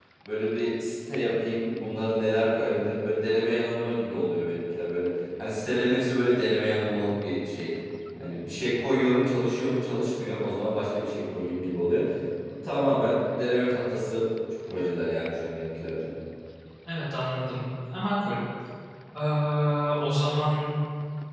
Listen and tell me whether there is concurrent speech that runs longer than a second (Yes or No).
No